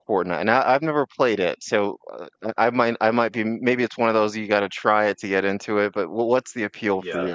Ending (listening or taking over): taking over